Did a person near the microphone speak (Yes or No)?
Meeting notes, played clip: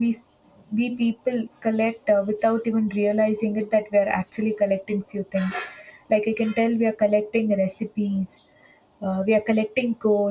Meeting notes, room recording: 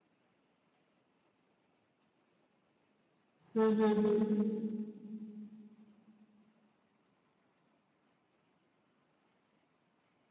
Yes